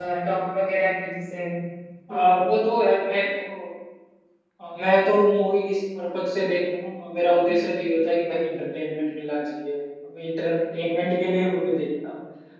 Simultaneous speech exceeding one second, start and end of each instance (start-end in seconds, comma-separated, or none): none